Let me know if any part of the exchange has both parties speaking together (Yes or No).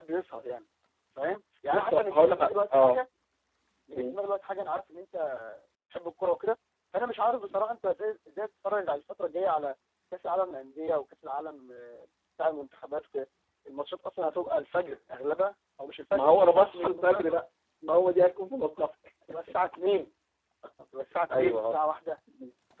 Yes